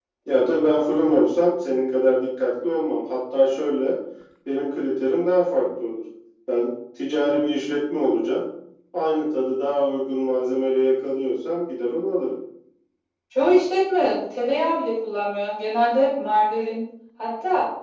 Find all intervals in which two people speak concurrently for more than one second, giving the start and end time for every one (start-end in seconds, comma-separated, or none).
none